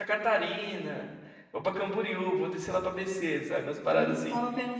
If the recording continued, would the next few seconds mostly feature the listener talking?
Yes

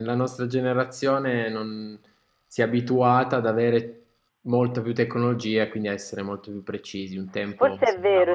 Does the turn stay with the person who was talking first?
No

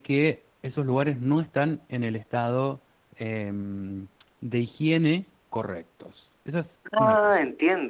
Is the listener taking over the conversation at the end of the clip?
Yes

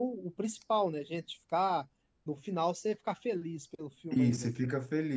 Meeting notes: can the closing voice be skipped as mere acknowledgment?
No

